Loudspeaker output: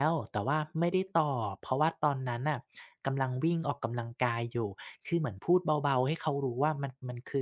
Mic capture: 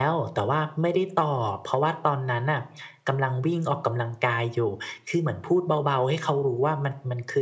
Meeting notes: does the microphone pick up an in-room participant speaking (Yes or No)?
No